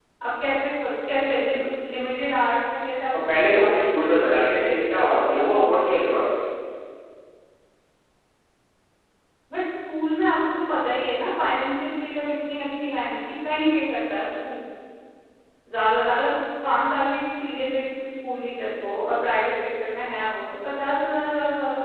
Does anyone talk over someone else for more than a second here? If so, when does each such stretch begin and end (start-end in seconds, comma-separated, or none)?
3.1-5.7